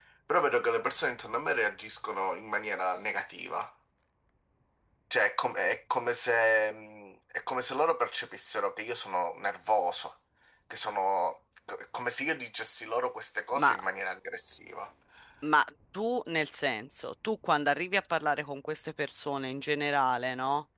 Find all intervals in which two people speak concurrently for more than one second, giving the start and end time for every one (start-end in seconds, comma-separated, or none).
none